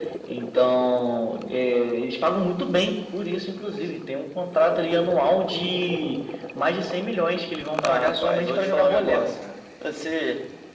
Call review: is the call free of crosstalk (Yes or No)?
No